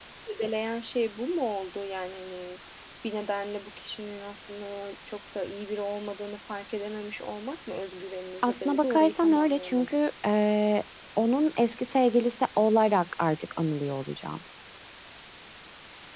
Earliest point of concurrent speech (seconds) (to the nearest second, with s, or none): 8 s